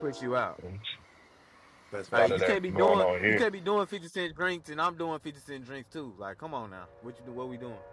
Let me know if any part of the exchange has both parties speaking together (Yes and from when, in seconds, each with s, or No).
Yes, from 2.1 s